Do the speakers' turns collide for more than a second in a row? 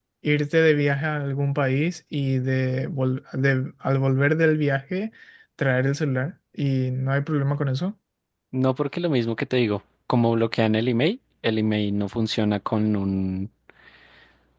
No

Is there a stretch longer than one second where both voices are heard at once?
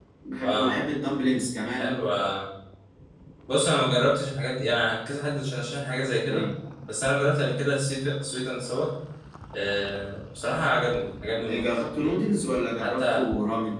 No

